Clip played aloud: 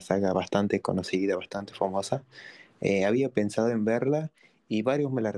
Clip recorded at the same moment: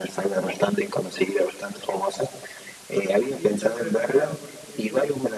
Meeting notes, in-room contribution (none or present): present